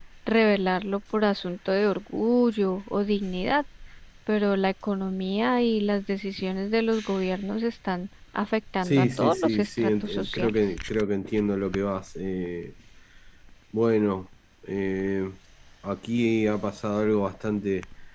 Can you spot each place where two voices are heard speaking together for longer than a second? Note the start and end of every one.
8.8-10.6

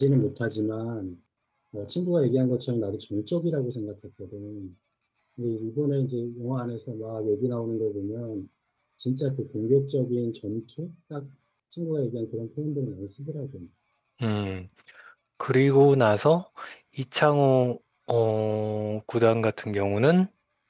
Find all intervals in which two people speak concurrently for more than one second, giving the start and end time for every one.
none

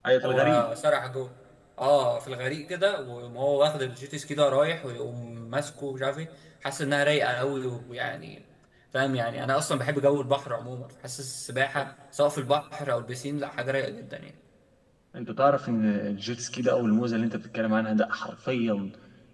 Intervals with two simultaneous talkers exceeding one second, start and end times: none

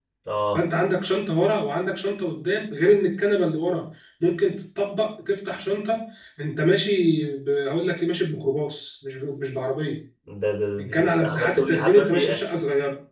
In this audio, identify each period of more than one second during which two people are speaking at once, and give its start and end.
10.8-12.4

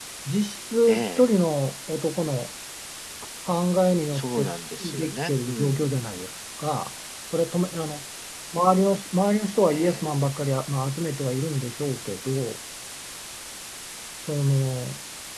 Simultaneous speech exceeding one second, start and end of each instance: 4.1-5.9

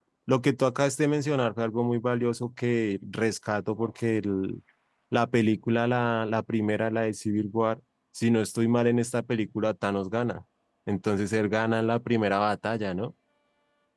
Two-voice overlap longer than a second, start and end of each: none

